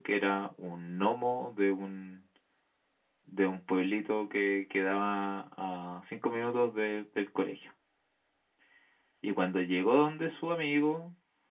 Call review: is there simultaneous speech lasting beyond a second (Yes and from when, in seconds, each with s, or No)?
No